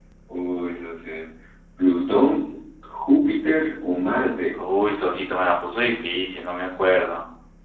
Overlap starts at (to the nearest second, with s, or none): none